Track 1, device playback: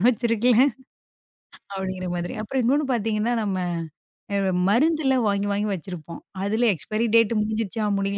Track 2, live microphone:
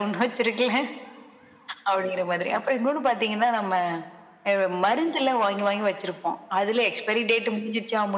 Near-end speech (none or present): none